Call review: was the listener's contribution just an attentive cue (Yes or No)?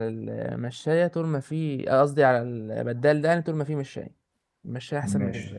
No